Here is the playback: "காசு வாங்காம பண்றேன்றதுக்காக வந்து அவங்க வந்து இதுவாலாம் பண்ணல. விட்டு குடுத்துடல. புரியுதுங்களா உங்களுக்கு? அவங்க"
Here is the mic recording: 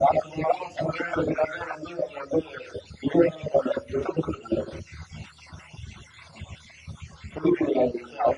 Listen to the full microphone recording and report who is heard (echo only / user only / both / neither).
echo only